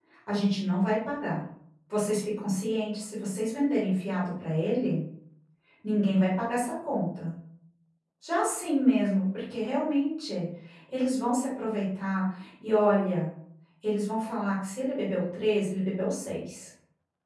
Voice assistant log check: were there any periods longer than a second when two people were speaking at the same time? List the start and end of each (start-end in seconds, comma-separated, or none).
none